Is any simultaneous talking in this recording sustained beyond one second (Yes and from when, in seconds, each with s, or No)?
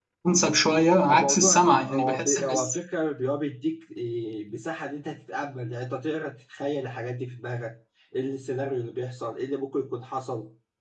Yes, from 1.1 s